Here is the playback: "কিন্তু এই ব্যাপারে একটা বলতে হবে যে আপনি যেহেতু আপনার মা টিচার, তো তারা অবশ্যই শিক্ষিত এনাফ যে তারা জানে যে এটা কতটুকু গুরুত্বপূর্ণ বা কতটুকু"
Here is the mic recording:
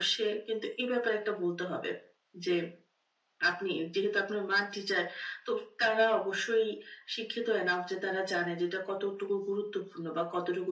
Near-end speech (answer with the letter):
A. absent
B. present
A